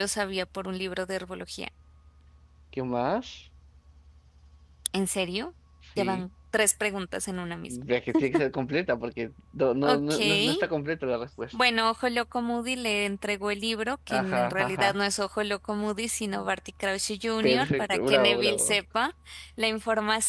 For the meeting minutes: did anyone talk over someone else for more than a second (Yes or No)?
Yes